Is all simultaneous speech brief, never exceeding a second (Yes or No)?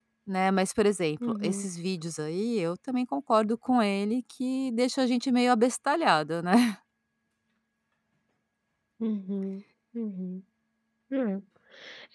Yes